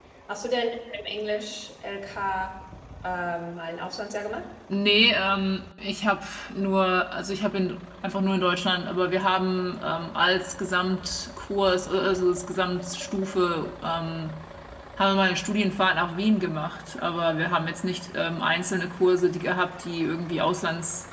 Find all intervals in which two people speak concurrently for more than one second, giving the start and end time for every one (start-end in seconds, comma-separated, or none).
none